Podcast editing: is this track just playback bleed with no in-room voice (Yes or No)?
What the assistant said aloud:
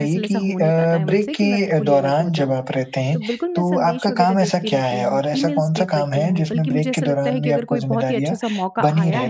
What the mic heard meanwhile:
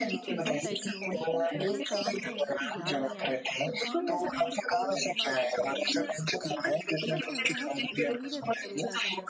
No